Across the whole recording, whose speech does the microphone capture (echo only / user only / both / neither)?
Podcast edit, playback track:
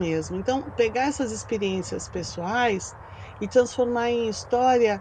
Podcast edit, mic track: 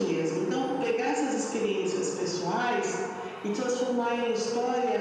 echo only